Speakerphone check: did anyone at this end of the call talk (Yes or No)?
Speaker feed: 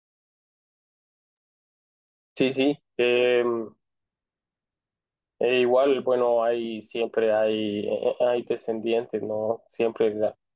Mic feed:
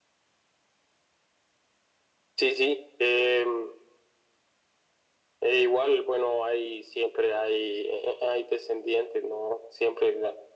No